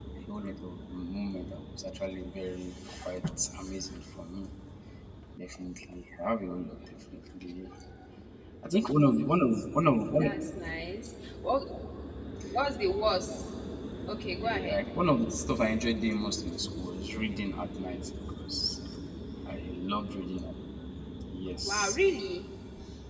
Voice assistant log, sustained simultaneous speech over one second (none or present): none